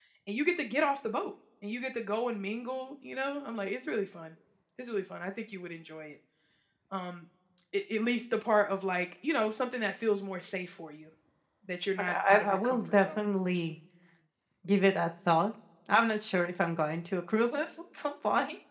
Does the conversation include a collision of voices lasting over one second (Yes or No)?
Yes